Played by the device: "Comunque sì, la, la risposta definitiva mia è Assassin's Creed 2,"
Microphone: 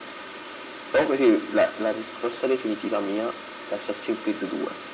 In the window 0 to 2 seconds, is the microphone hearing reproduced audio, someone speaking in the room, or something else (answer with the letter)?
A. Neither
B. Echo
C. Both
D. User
B